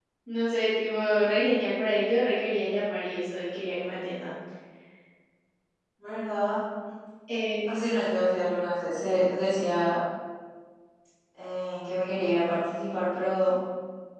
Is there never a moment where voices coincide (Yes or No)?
Yes